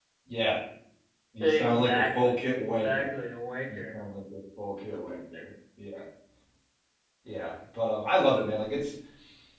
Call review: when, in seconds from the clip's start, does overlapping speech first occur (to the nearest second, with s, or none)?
1 s